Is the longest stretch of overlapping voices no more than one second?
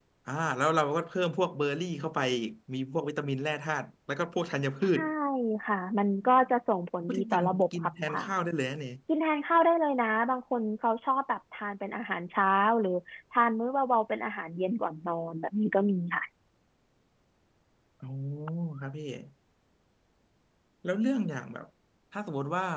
No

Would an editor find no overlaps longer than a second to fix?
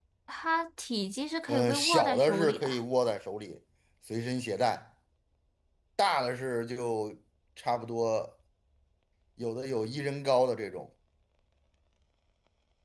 No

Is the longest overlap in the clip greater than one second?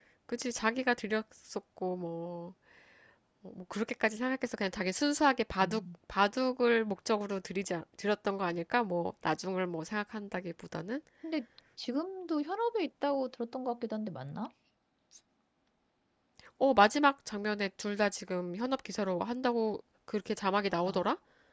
No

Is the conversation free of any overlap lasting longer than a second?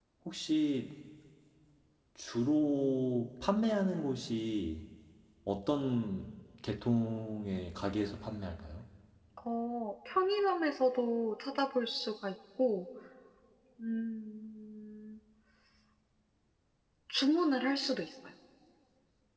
Yes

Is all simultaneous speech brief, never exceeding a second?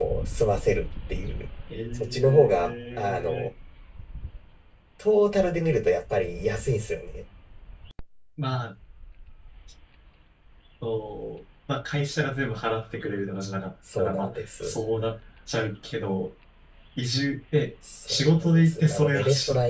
No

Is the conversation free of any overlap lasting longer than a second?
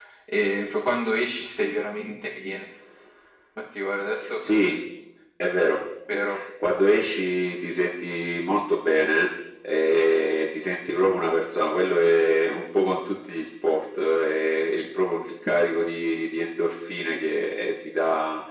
Yes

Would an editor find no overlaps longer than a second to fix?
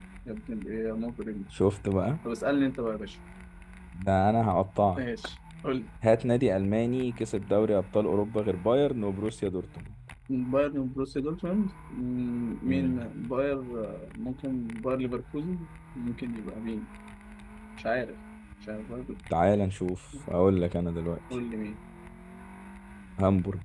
Yes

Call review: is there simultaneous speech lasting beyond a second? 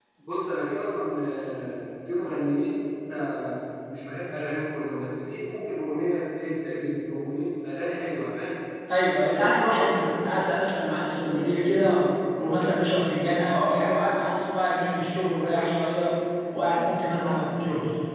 No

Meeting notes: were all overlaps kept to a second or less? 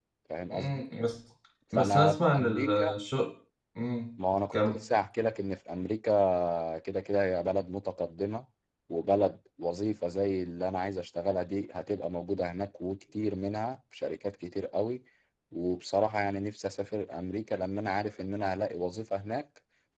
No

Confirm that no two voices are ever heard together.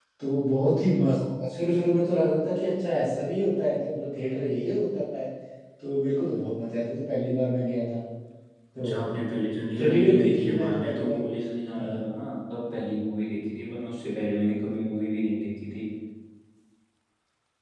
No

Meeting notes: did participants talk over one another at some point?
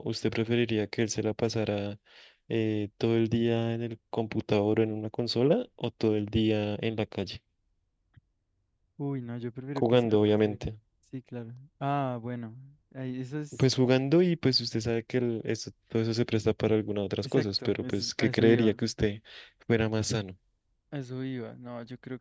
Yes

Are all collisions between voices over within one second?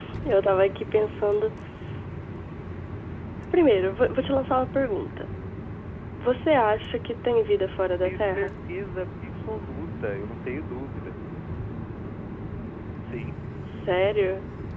Yes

